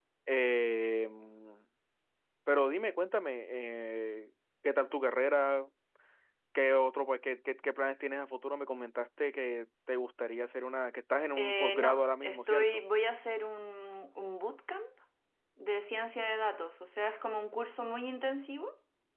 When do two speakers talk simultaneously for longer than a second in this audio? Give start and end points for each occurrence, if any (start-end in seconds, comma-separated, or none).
11.4-12.8